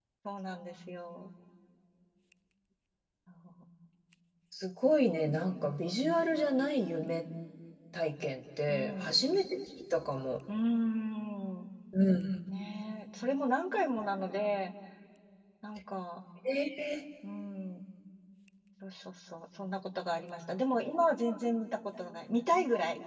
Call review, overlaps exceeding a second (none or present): none